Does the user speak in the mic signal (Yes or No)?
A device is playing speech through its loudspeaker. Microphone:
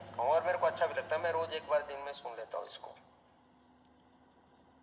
No